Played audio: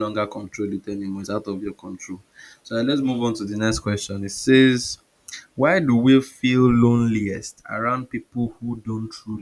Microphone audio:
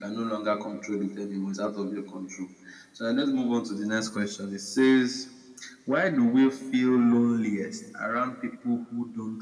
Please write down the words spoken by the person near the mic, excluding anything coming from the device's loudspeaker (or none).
none